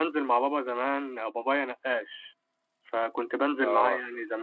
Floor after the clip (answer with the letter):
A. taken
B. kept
B